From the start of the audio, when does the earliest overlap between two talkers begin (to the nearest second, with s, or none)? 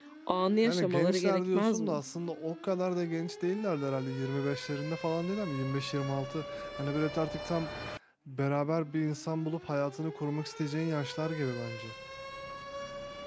1 s